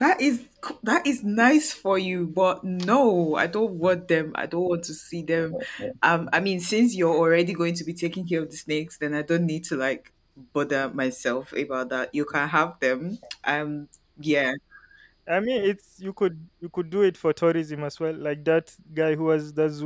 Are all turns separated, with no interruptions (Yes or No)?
Yes